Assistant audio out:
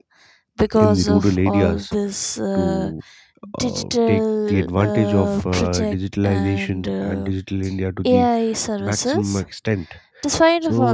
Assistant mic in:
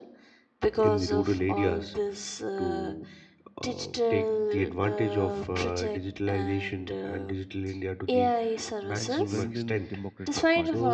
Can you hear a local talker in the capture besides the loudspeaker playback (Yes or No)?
Yes